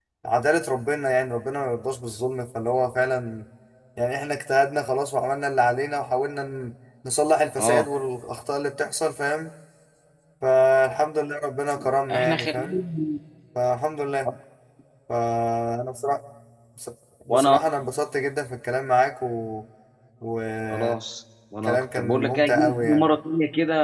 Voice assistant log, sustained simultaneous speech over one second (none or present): present